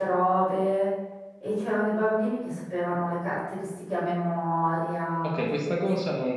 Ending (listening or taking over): taking over